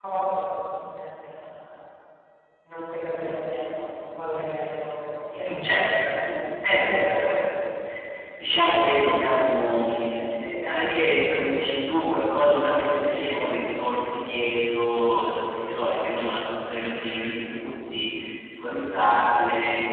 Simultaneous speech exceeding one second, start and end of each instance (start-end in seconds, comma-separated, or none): 5.6-7.2